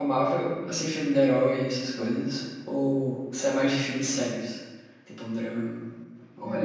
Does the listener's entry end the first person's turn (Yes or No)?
Yes